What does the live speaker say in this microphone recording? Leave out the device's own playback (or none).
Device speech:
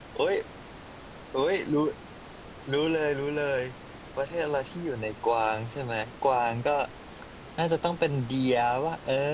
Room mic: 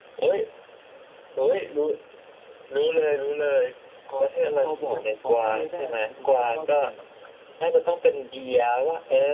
พอพอบอกพอใบ้ได้ไหมครับคุณต้นว่าประมาณแบบ